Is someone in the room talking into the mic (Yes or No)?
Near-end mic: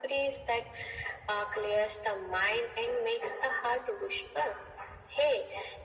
No